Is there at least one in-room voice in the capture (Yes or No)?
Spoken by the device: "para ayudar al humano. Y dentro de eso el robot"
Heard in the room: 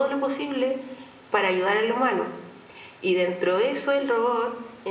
No